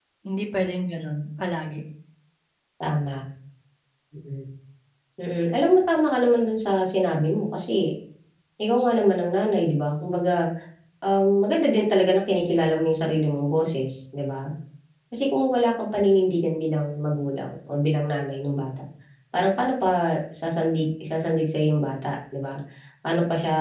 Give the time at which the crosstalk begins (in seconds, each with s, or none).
none